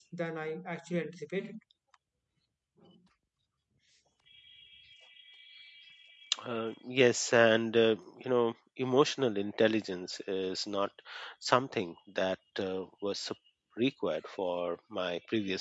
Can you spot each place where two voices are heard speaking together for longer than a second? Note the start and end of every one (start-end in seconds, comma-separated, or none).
none